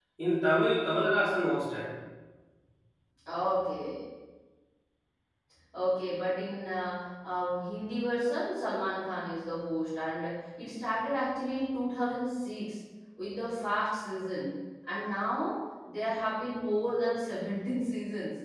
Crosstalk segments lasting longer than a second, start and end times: none

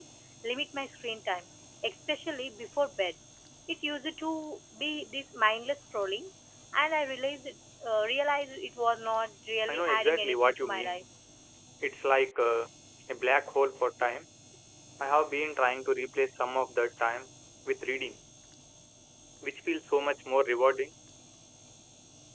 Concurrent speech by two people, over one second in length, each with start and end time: 9.7-11.0

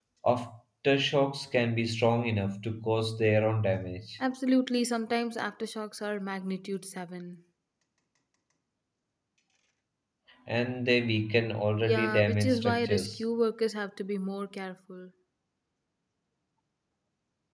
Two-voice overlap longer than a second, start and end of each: 11.8-13.2

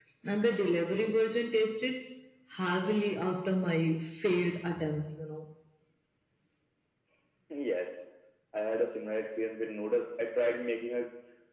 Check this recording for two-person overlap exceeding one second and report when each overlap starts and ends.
none

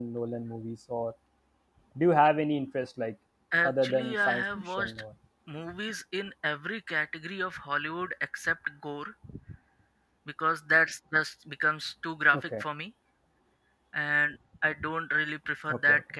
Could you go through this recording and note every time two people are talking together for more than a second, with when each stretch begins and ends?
3.6-4.9

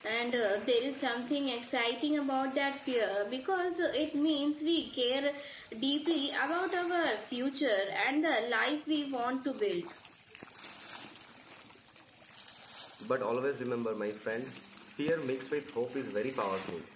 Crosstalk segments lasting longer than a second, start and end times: none

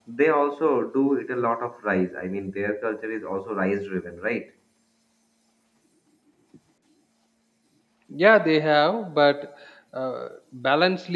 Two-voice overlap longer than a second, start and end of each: none

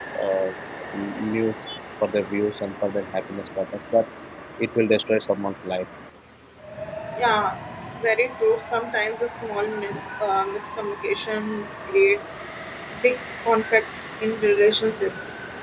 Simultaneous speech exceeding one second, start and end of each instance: none

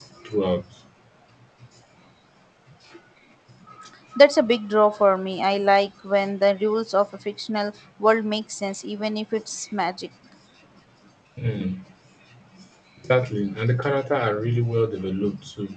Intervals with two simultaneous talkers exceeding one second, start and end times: none

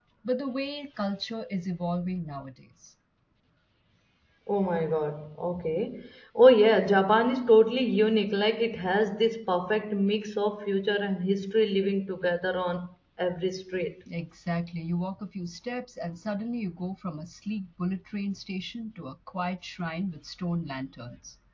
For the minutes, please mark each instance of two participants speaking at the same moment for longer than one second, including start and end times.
none

